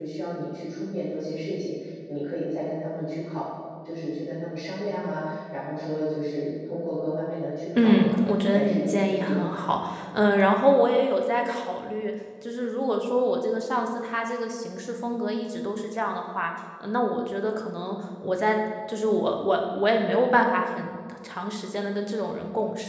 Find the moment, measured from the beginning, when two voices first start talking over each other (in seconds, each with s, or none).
7.8 s